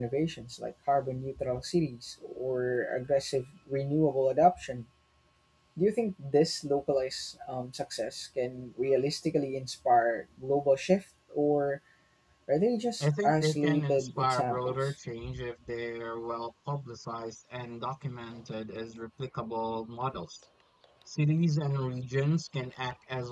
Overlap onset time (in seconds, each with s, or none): 13.0 s